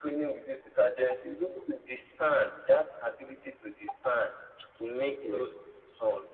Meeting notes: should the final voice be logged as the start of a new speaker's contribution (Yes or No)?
No